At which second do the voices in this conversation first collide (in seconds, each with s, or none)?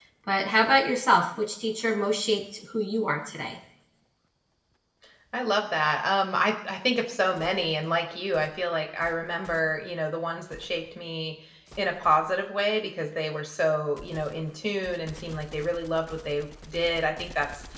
none